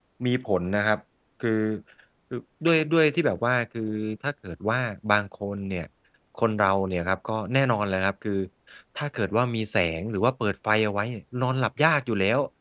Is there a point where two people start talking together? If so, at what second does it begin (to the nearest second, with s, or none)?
none